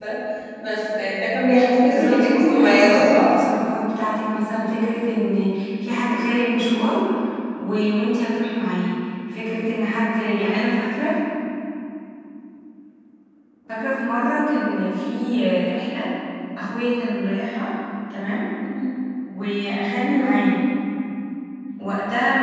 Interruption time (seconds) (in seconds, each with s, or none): 1.8 s